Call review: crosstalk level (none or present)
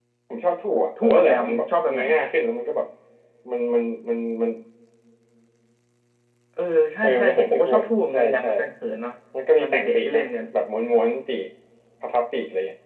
present